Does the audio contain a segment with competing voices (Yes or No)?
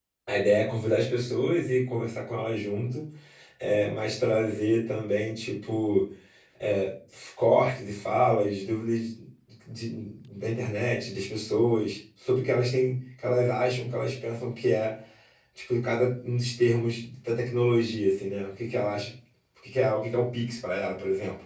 No